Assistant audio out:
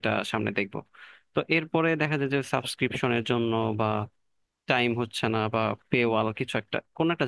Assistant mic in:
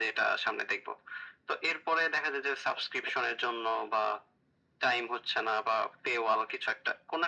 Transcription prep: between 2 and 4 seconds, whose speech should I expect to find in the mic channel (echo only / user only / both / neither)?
echo only